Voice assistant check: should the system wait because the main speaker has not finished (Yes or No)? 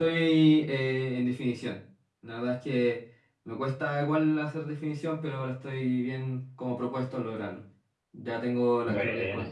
Yes